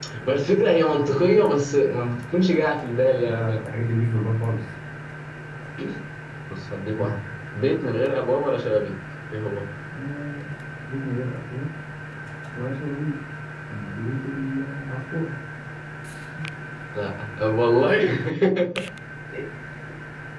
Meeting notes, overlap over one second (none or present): none